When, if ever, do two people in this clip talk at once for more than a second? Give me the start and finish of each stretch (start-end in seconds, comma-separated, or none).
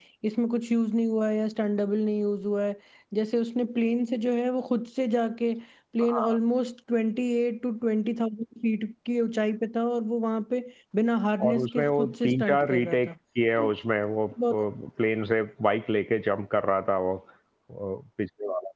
11.5-13.1